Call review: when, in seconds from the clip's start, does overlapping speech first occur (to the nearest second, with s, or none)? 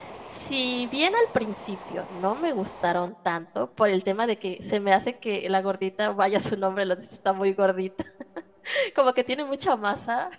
none